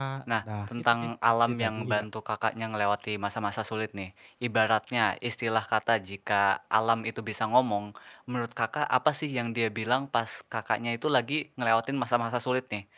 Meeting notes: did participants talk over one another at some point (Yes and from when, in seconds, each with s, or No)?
Yes, from 0.7 s